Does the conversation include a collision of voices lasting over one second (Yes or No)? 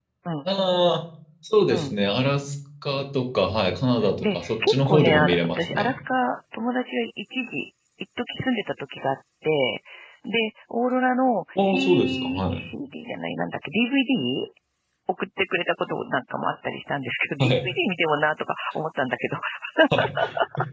Yes